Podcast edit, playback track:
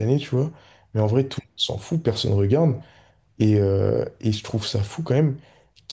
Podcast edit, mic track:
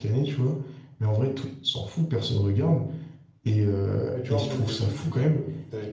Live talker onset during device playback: 4.1 s

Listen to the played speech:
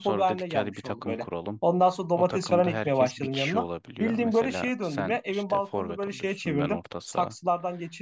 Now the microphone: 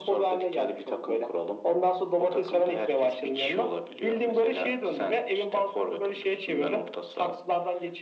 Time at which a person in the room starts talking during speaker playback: none

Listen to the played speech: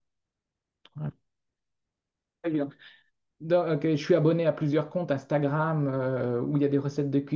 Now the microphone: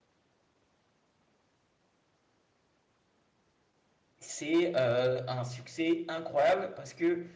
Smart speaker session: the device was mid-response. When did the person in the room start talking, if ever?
4.2 s

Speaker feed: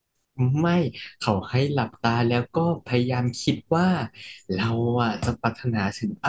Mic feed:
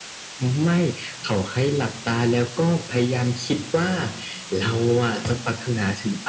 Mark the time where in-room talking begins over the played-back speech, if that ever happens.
none

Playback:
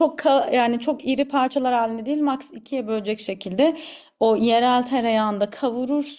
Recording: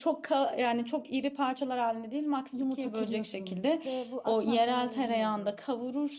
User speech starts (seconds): 2.5 s

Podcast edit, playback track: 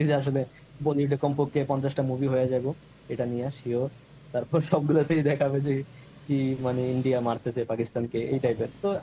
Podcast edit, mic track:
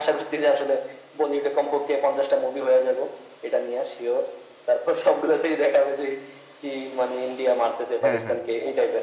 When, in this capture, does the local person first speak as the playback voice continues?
8.0 s

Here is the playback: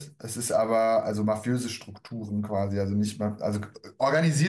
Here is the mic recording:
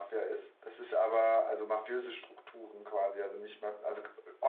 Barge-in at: none

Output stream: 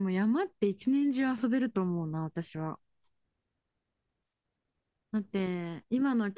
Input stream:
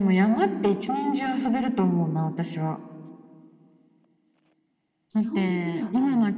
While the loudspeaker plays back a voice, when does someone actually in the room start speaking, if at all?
5.1 s

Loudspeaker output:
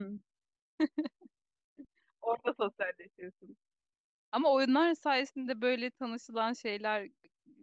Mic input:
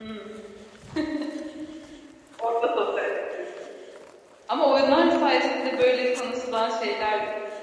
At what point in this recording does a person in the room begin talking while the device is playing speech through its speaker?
none

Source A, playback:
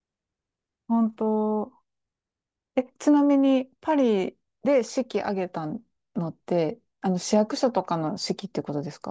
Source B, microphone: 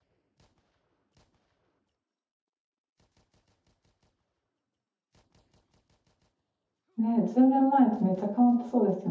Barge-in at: 7.0 s

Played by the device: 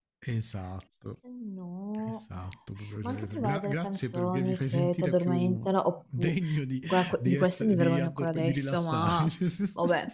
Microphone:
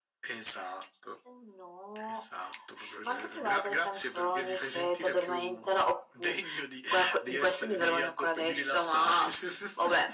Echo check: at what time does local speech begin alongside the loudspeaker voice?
none

